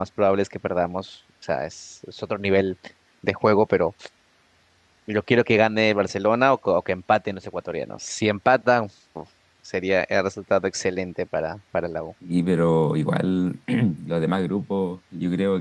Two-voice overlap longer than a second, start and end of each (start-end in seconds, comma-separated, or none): none